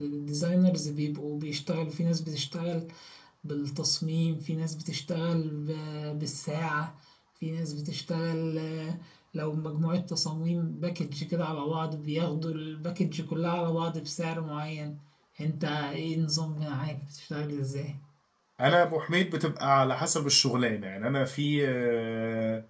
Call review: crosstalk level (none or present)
none